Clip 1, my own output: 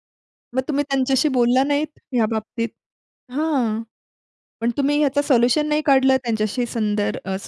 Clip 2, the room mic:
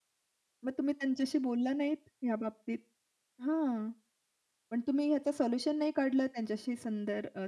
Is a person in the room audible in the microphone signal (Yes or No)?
No